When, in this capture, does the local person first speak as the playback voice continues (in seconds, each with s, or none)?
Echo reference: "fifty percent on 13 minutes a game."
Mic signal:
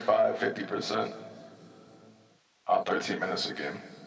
none